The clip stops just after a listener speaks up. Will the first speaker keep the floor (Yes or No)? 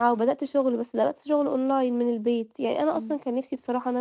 Yes